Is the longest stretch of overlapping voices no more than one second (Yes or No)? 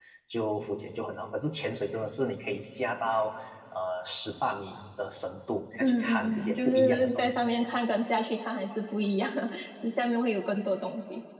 No